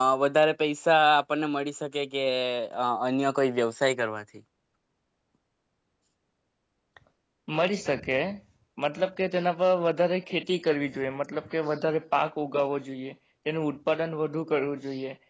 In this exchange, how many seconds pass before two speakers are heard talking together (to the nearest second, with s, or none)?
none